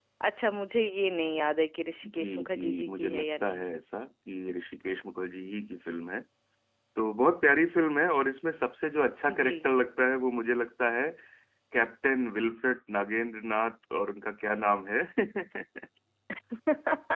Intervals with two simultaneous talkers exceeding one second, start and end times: 2.2-3.6

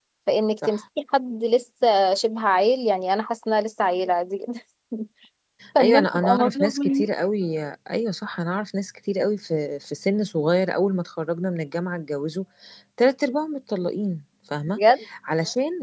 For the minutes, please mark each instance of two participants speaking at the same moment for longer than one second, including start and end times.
5.8-7.1

